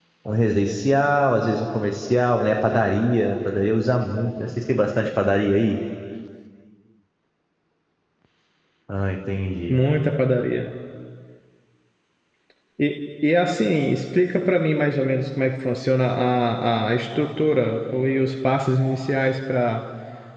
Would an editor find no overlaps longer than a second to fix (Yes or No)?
Yes